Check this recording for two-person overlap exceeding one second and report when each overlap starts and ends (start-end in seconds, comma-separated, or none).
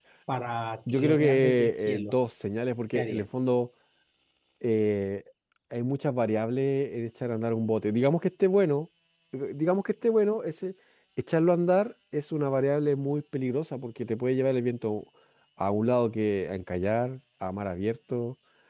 0.9-2.1